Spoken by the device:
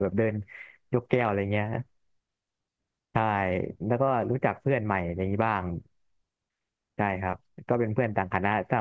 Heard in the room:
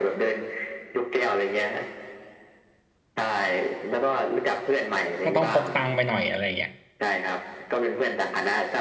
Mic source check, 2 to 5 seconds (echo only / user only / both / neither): echo only